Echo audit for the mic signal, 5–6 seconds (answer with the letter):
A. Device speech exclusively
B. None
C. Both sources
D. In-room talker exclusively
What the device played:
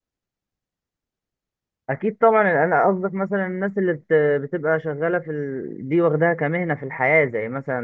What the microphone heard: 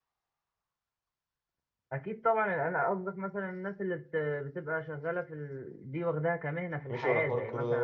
A